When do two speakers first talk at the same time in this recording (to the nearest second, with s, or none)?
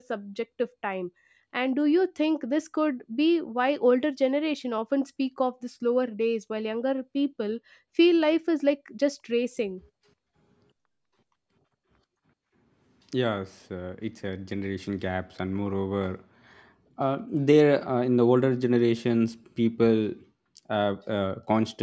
none